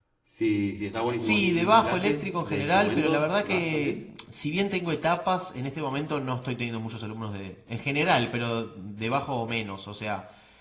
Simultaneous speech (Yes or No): Yes